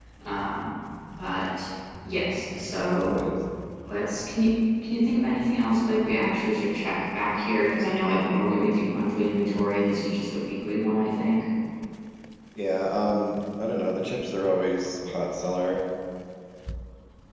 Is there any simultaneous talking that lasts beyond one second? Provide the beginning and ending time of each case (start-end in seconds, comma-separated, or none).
none